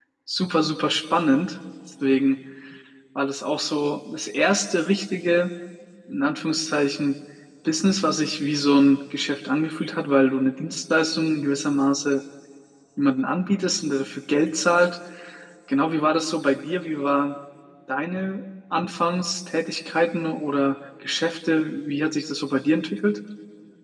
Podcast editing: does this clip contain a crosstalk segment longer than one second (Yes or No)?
No